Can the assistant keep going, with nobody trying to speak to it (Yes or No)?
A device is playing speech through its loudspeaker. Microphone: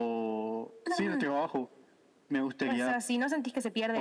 Yes